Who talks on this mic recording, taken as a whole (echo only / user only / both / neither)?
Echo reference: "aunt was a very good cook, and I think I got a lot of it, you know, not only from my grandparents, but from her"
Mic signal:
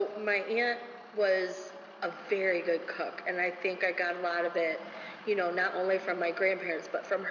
echo only